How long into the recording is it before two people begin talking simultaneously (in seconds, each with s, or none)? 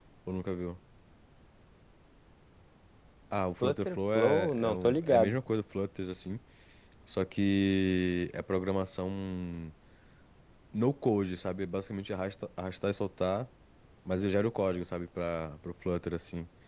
3.6 s